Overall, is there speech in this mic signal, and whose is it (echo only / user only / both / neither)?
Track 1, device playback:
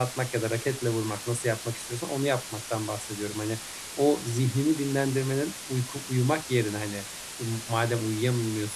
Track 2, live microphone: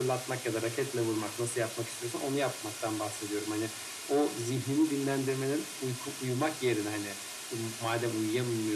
echo only